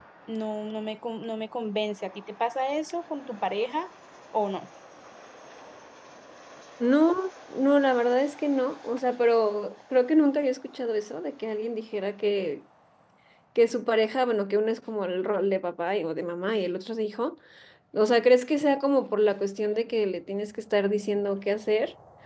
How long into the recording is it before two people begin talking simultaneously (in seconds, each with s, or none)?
none